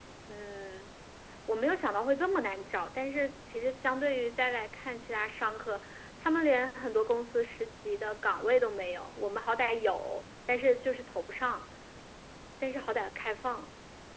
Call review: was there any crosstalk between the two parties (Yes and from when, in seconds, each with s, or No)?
No